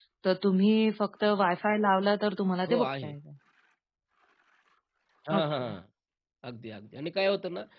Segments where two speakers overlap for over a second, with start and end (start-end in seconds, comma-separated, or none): none